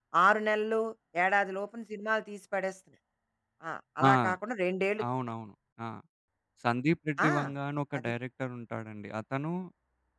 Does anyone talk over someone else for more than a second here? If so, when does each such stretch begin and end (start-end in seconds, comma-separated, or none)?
none